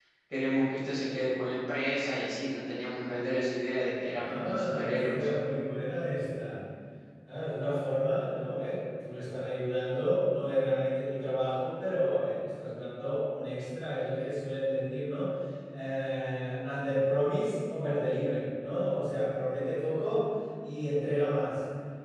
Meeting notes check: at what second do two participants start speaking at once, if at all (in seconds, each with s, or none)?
4.0 s